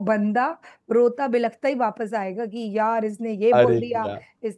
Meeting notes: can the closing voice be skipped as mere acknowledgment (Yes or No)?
Yes